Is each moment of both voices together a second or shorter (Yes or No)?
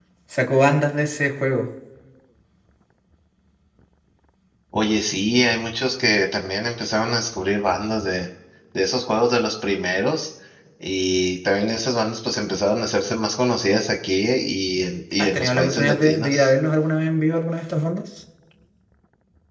No